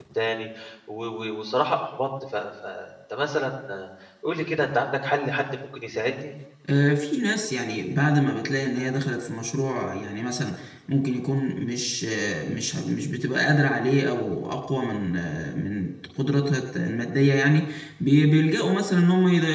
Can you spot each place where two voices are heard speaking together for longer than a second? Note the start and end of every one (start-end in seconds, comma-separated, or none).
none